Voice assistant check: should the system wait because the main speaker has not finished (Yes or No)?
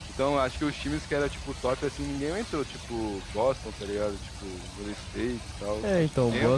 No